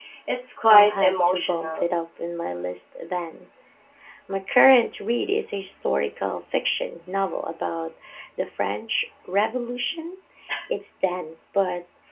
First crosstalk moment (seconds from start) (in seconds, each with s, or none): 0.7 s